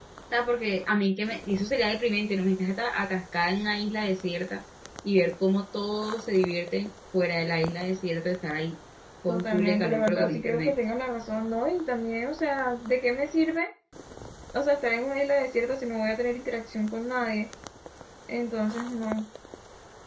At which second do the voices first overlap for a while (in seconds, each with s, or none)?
9.3 s